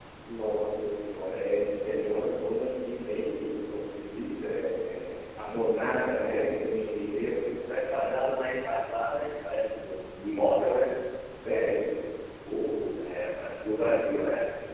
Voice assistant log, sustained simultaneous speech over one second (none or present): none